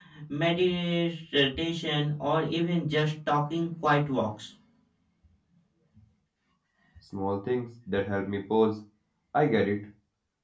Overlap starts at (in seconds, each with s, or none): none